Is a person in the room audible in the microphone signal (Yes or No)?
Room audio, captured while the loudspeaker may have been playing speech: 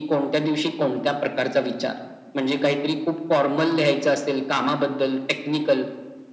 No